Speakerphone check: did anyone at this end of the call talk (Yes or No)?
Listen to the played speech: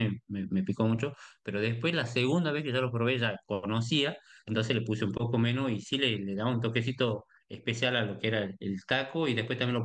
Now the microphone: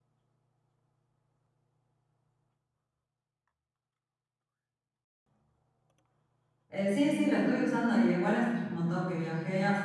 Yes